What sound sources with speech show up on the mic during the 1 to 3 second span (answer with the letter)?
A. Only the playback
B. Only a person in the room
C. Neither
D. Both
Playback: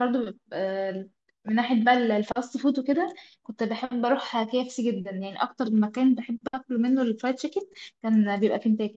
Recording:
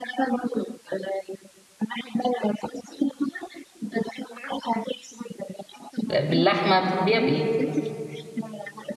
A